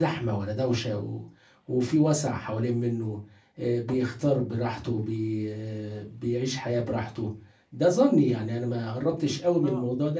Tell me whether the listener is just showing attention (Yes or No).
Yes